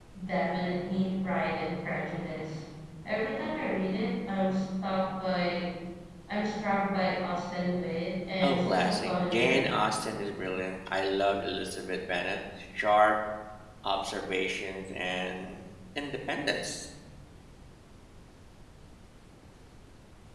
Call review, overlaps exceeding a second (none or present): present